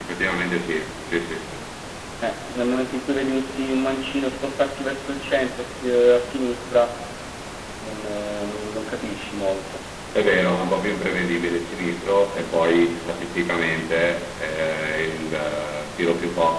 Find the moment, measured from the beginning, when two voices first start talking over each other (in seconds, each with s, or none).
none